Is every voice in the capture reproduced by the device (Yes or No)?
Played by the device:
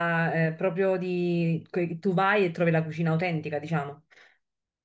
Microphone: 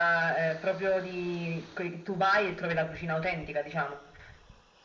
Yes